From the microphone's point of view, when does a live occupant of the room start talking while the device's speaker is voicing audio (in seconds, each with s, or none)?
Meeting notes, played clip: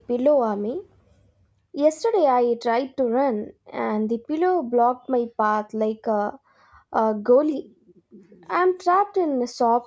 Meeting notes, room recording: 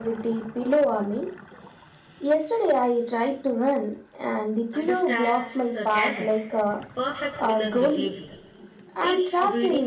4.7 s